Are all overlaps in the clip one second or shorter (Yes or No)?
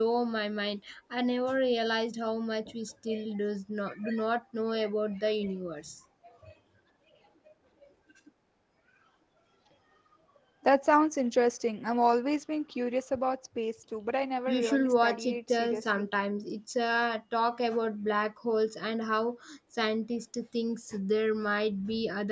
No